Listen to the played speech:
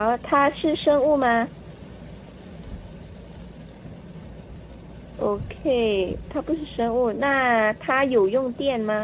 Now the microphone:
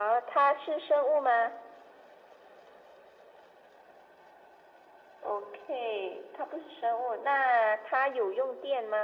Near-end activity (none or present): none